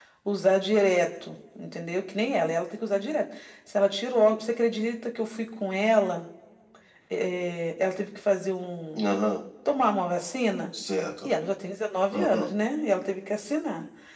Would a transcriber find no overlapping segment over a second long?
Yes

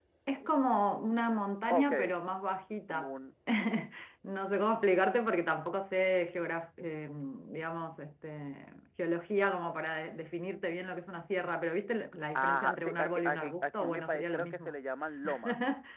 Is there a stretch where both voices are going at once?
Yes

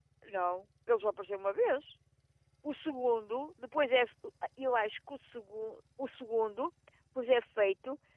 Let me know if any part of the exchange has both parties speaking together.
No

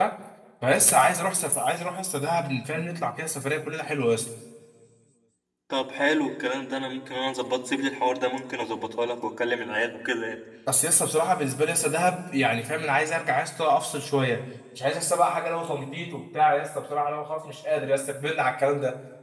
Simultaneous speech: No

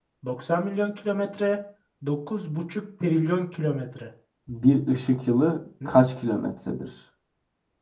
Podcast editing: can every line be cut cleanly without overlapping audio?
Yes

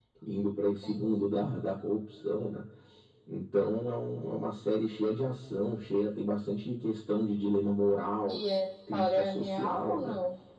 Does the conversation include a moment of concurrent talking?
Yes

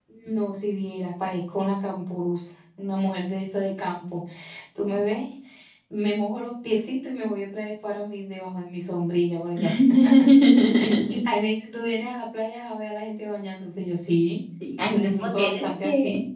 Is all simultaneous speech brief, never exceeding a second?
No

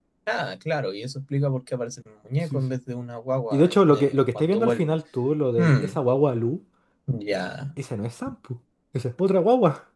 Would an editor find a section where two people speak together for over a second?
Yes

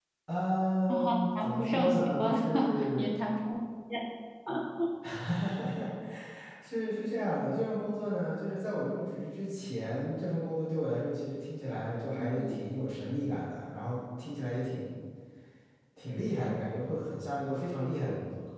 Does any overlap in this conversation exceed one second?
Yes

